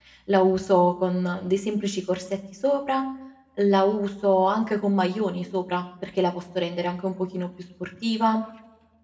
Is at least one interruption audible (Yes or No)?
No